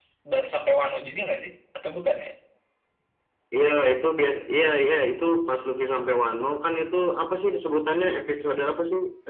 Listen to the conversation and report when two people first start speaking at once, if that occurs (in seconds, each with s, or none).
none